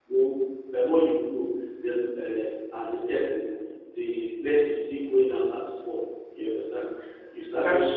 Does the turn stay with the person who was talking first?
Yes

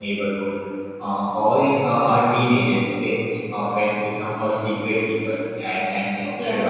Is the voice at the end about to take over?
No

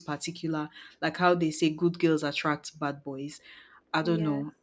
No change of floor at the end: Yes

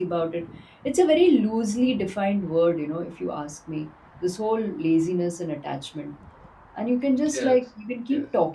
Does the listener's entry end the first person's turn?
No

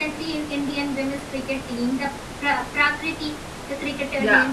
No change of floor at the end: Yes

